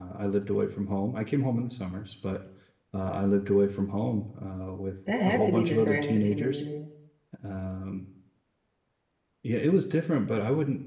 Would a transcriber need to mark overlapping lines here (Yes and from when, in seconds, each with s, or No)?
Yes, from 5.1 s